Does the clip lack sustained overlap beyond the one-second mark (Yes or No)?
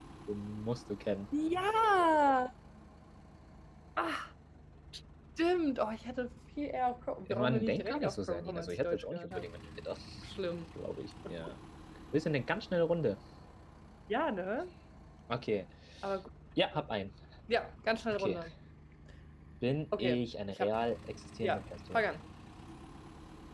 No